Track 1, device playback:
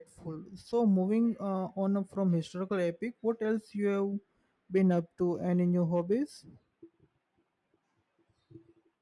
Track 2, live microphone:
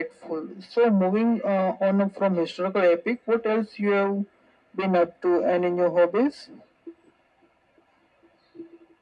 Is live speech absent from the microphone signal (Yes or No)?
Yes